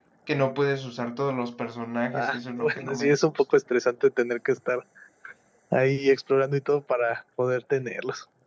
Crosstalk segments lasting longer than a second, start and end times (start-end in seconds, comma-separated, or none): 2.1-3.4